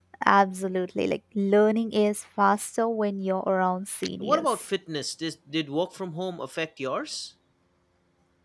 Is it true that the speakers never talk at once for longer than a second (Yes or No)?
Yes